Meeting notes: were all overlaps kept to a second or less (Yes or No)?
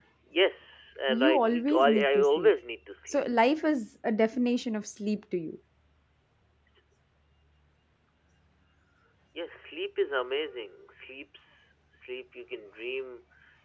No